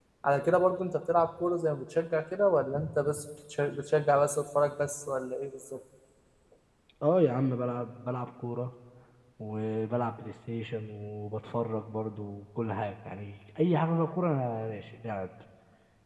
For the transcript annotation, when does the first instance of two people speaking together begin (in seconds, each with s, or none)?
none